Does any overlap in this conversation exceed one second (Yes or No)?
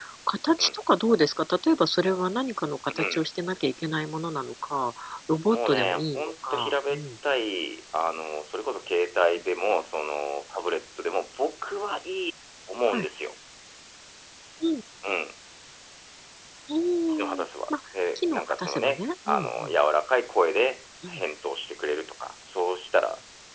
Yes